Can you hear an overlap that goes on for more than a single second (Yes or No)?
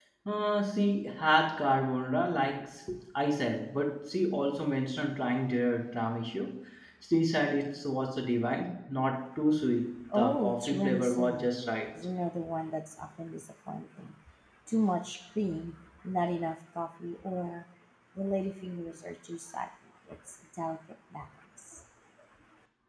Yes